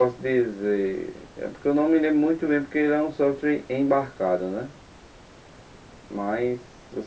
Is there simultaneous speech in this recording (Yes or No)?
No